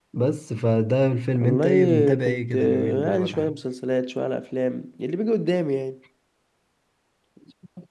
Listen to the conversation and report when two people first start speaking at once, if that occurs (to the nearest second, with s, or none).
1 s